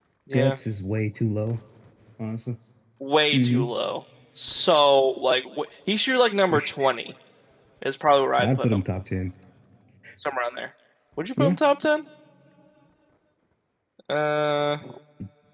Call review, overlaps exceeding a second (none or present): none